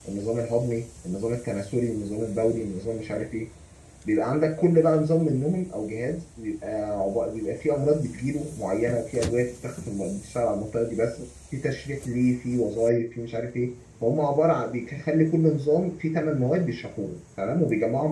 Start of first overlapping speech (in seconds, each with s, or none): none